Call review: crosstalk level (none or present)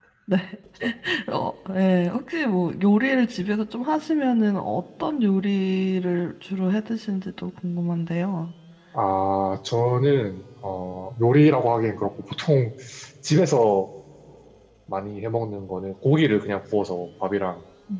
none